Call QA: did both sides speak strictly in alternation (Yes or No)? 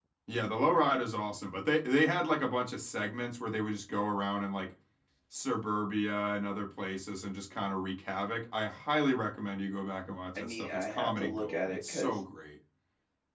No